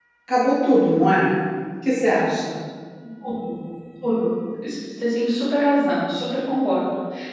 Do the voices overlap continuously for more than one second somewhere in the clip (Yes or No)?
No